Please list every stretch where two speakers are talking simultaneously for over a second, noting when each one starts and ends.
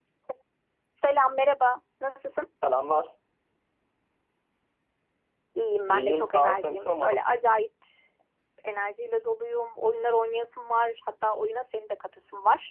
5.9-7.2

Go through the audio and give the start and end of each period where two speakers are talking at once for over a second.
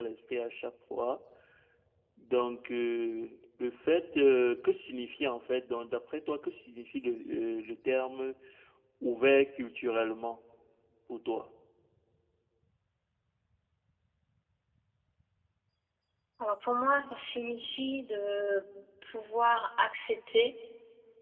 none

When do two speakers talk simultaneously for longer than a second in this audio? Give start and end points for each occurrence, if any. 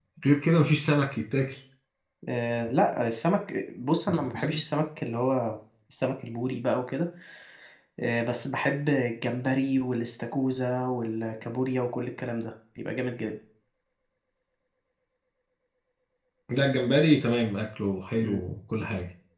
none

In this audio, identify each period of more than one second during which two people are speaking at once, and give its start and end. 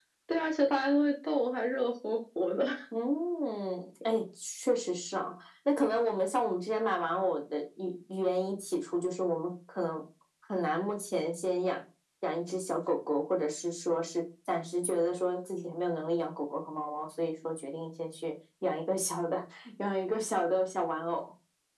none

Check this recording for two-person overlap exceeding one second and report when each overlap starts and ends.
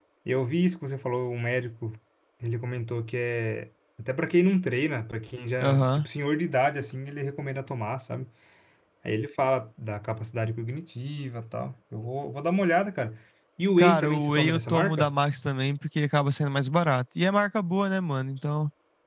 13.8-15.1

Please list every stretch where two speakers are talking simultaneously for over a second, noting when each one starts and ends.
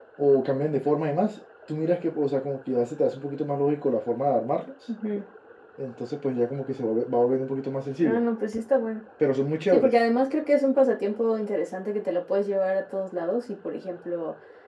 none

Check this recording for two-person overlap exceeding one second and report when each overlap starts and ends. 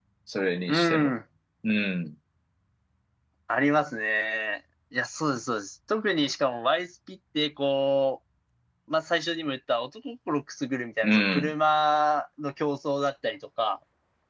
none

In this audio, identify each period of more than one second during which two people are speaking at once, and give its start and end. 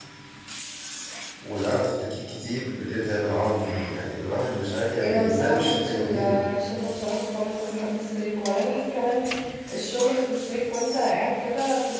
5.0-6.5

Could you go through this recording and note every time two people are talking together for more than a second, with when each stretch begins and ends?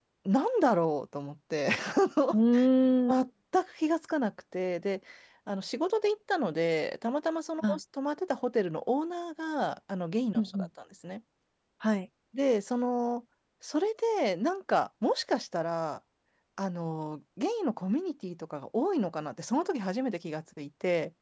none

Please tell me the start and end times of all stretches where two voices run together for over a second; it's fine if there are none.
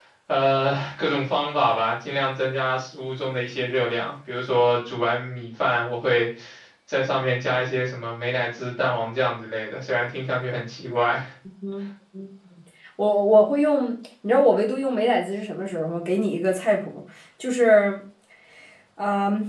none

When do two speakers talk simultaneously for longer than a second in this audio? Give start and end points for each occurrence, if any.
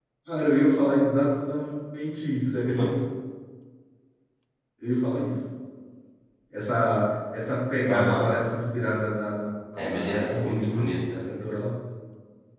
9.8-11.2

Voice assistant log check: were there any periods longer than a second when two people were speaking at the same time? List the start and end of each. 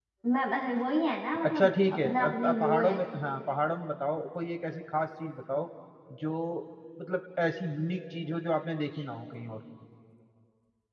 1.4-3.0

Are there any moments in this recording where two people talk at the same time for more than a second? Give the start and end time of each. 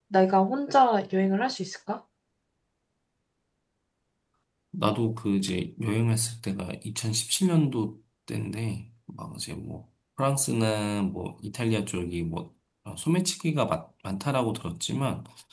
none

